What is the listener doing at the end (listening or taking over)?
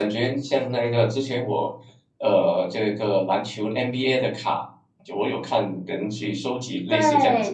taking over